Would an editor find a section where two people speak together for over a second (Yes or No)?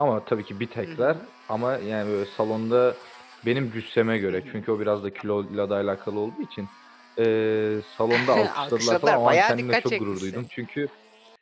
Yes